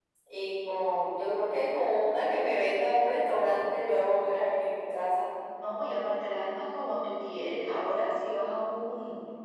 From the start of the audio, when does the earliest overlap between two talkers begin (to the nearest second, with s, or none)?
none